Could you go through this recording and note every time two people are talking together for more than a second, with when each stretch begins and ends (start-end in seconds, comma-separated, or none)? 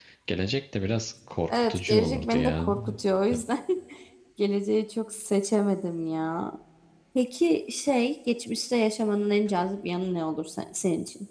1.5-2.7